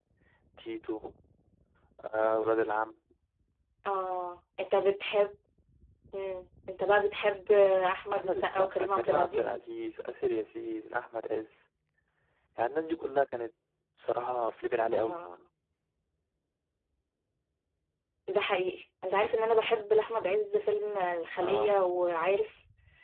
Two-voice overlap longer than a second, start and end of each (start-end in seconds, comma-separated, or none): 8.1-9.5